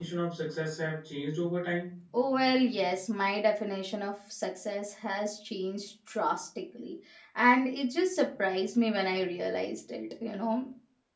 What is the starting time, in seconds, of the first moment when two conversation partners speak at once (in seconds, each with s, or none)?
none